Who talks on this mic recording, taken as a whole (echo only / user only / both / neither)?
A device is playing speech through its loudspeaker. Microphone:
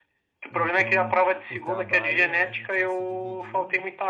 both